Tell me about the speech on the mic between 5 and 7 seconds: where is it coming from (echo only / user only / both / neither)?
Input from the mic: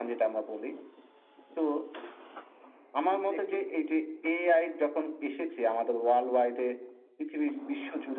echo only